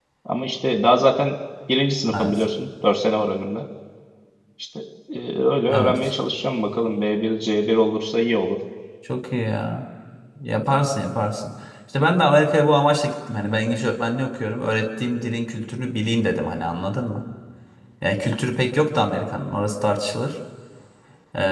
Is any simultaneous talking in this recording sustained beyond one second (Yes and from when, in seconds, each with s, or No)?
No